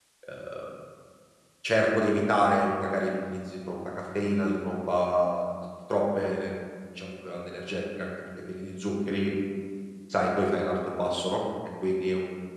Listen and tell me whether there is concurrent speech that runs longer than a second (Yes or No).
No